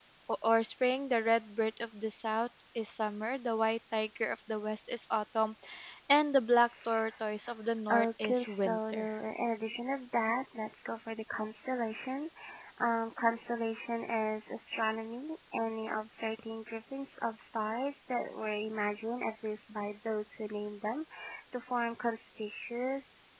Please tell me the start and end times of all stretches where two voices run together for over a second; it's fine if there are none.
7.9-9.1

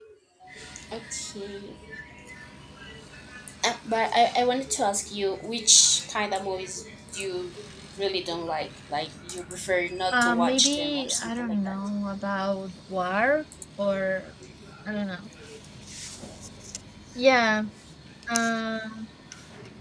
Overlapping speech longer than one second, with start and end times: 10.1-11.7

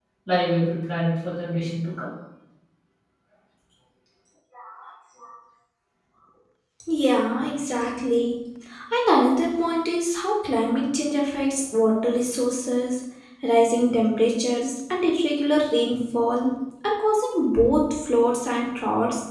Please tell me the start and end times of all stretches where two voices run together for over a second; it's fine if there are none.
none

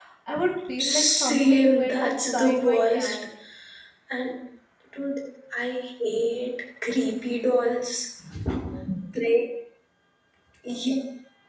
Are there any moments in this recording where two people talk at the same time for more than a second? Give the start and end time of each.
0.8-3.2

